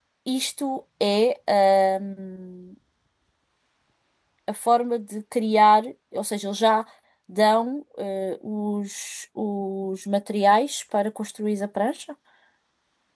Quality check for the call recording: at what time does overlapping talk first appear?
none

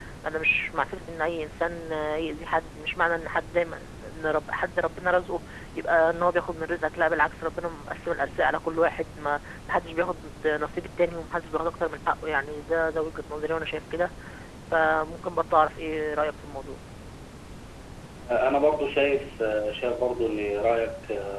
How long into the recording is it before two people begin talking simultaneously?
none

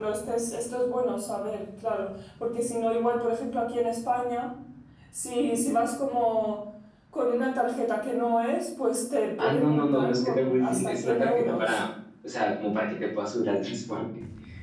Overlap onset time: 9.4 s

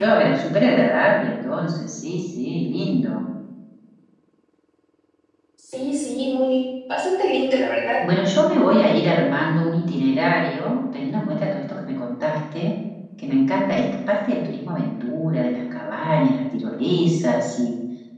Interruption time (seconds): none

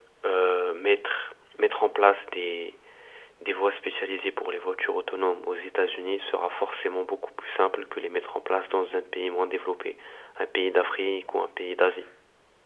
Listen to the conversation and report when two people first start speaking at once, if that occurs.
none

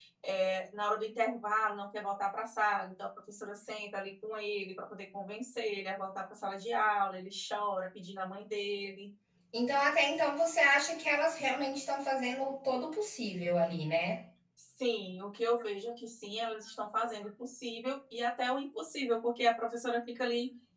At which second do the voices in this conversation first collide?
none

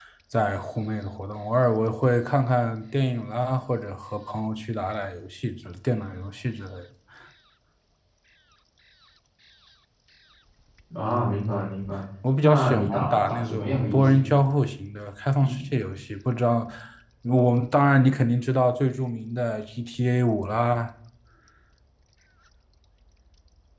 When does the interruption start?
12.4 s

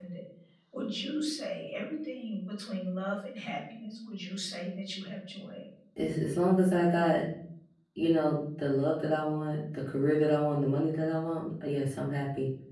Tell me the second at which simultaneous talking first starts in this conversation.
none

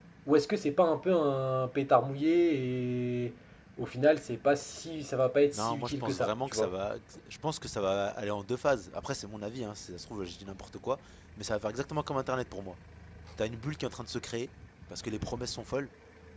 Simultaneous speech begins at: 5.5 s

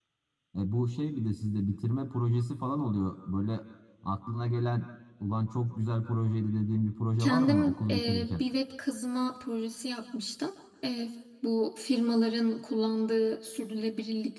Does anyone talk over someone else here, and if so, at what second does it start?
7.2 s

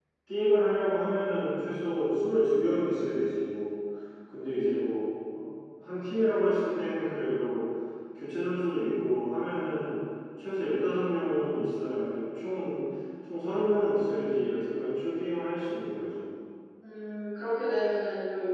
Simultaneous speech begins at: none

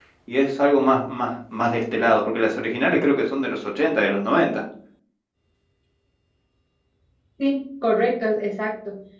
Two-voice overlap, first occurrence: none

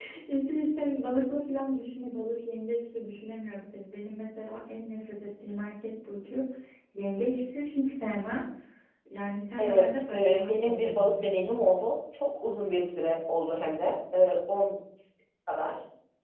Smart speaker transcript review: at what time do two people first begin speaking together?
9.6 s

